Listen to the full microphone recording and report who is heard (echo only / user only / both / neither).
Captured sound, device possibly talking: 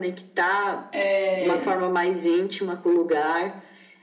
both